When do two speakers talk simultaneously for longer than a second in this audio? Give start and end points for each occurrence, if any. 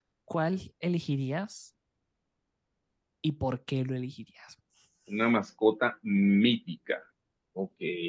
none

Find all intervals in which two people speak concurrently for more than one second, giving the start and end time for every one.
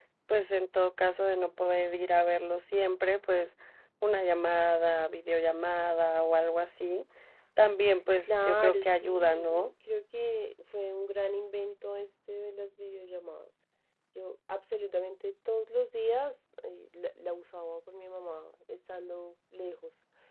8.2-9.7

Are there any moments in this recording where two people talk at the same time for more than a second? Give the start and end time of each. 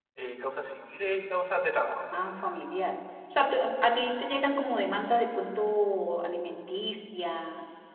none

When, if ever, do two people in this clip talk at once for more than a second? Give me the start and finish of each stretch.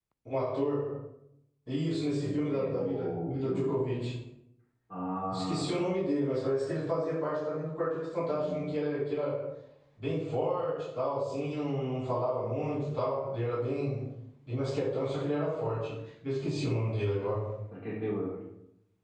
2.2-3.8

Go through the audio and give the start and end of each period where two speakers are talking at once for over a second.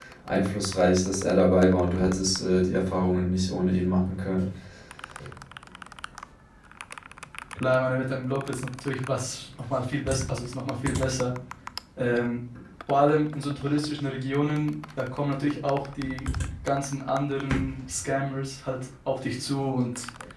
none

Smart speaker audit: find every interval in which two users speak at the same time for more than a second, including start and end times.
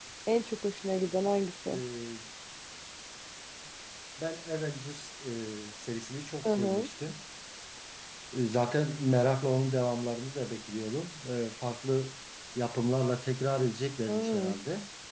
none

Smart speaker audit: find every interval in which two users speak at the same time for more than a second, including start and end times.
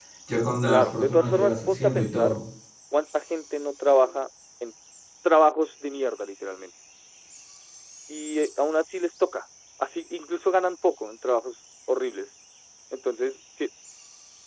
0.7-2.4

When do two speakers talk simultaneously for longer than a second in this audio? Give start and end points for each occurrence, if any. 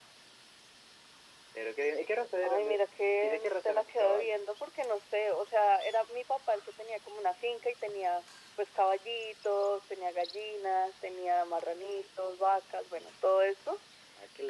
3.2-4.4

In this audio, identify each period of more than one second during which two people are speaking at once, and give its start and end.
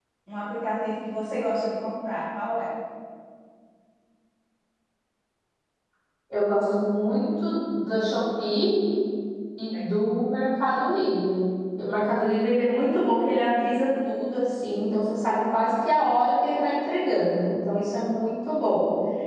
none

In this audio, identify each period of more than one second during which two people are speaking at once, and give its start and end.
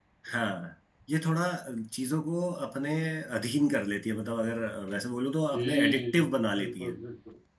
5.5-7.0

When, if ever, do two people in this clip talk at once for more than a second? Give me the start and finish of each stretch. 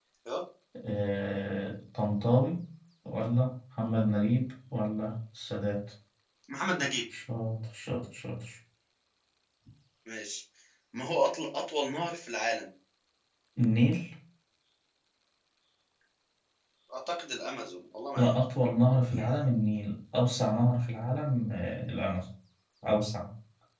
none

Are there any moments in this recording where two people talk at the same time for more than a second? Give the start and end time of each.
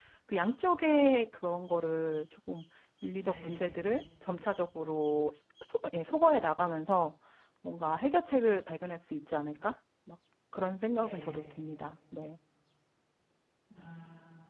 none

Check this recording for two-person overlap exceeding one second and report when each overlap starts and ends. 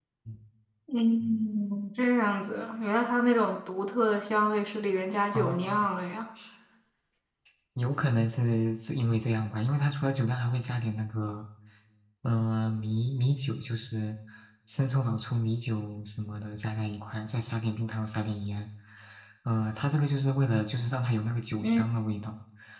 none

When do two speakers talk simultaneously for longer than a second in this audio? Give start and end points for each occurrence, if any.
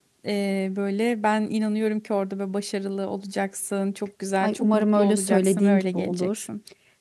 4.4-6.5

